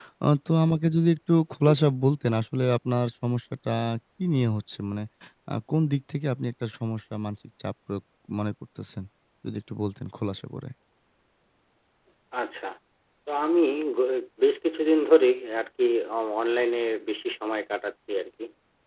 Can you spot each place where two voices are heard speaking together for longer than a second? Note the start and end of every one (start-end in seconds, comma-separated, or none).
none